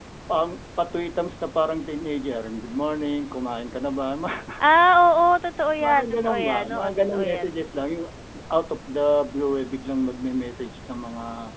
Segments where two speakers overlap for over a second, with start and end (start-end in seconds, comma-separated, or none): 5.8-7.6